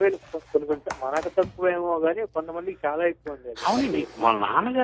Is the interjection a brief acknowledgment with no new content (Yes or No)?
No